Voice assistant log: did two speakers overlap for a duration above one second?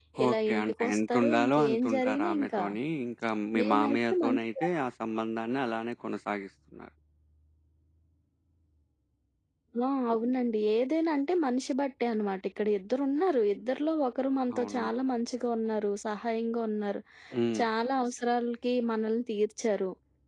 Yes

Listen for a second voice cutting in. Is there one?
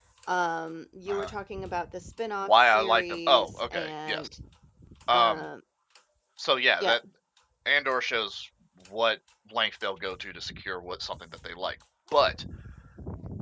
Yes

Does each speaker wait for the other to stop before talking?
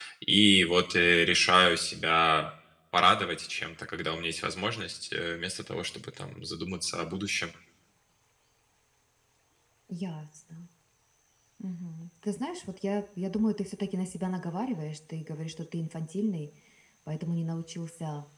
Yes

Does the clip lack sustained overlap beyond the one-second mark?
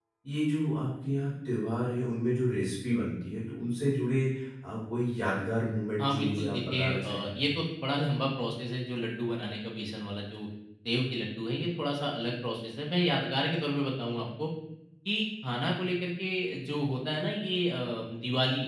No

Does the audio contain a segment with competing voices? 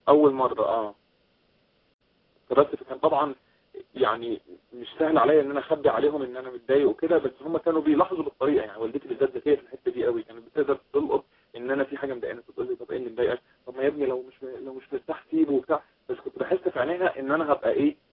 No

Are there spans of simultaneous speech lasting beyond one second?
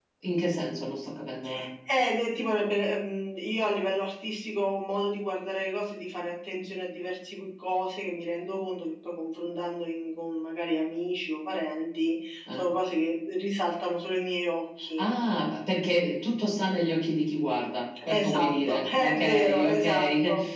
Yes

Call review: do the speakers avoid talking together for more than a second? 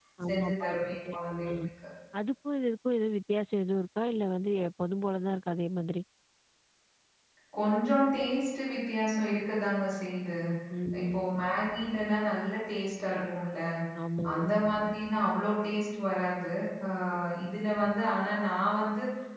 No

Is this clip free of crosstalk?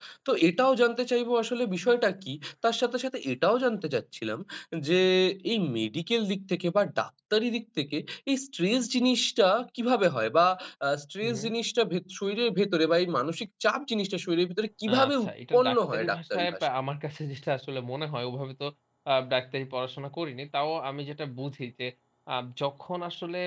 No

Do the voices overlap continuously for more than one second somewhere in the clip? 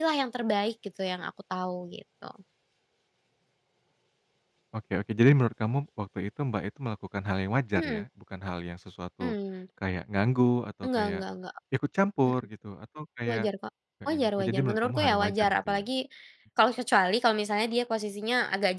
Yes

